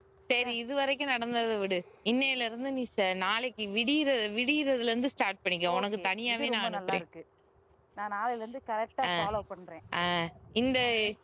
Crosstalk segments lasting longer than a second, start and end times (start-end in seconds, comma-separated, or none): 5.8-7.0